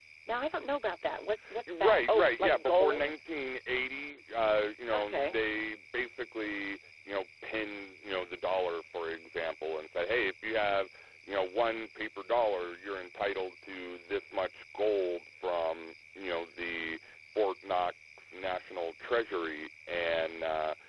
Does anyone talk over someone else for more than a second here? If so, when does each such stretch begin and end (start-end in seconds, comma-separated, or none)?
1.7-3.1